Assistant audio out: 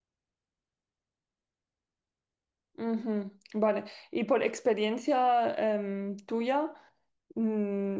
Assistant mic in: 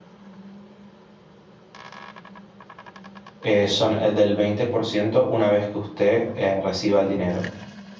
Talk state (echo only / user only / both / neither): user only